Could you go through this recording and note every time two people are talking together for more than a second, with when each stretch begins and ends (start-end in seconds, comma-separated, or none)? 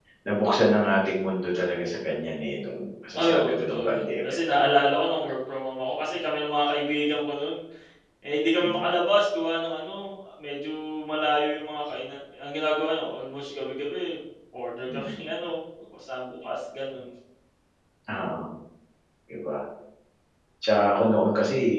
3.2-4.8